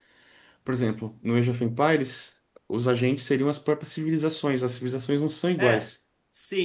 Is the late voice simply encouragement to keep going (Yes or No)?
No